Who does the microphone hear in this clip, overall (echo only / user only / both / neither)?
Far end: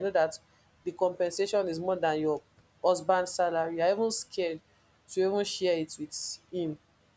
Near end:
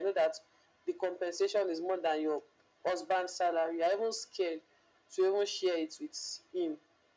echo only